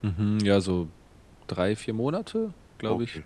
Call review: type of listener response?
taking over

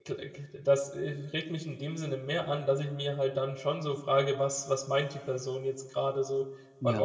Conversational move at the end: listening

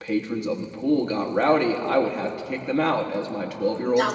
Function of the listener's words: taking over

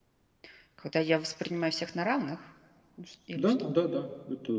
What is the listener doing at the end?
taking over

